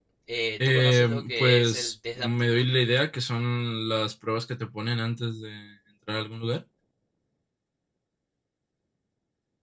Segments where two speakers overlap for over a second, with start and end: 0.6-2.6

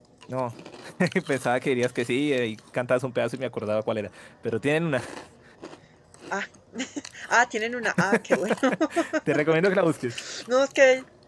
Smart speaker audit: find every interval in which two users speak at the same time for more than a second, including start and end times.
none

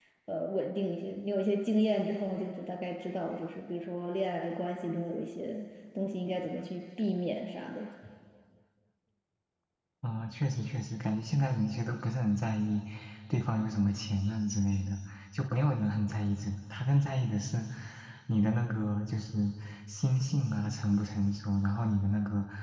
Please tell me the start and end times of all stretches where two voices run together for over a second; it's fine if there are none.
none

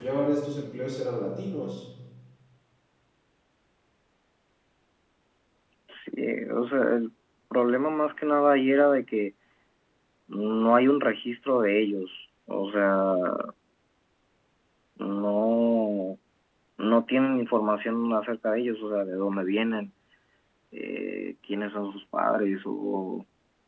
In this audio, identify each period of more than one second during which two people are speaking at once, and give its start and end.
none

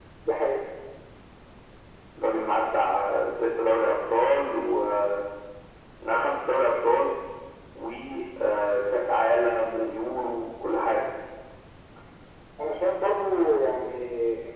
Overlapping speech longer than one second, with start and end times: none

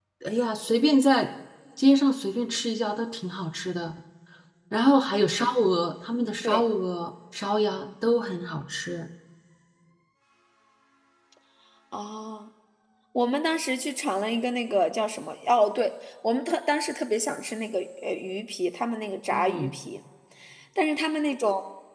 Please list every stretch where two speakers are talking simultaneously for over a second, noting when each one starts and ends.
none

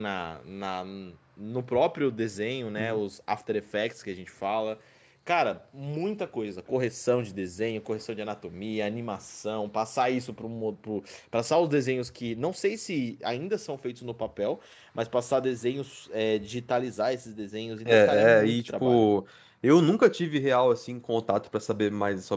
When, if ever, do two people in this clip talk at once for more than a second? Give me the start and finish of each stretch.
17.9-19.1

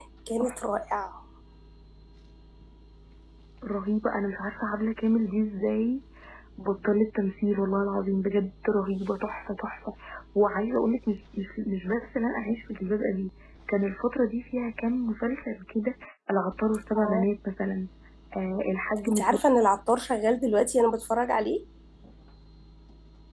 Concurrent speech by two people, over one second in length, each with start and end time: none

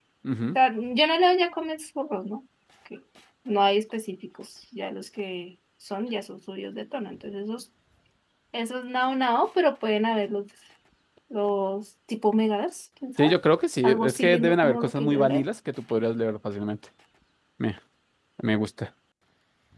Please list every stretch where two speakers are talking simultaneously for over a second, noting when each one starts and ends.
13.8-15.4

